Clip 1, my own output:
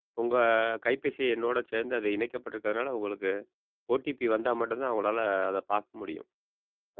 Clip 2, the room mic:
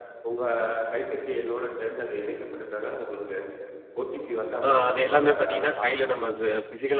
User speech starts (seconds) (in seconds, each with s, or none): 4.7 s